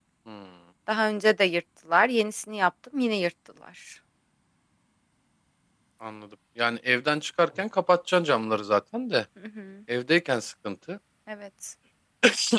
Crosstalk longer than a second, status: none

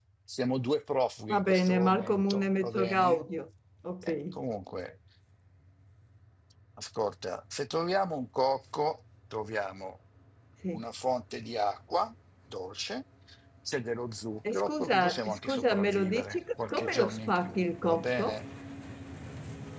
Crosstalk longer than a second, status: present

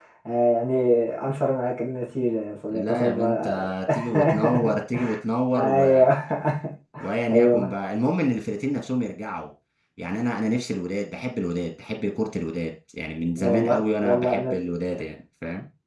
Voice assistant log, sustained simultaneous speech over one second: present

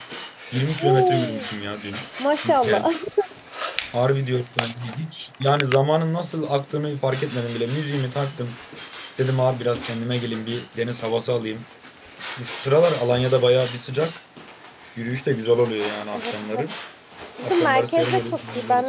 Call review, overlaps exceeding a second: present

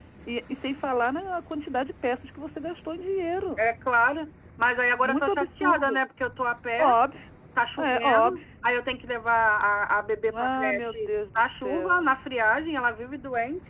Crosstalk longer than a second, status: present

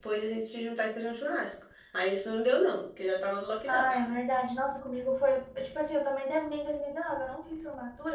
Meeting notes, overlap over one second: none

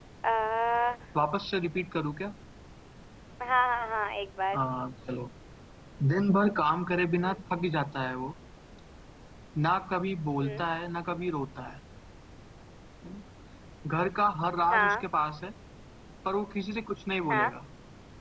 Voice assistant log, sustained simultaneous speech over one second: none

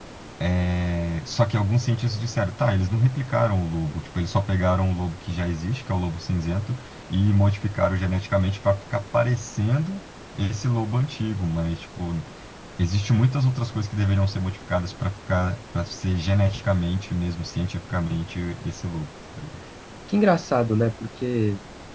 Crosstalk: none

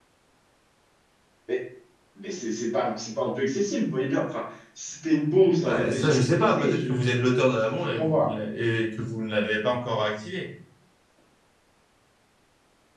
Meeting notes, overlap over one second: present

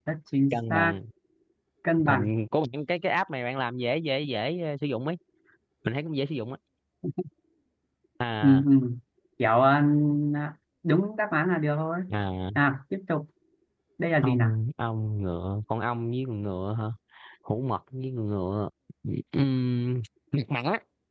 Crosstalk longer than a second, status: none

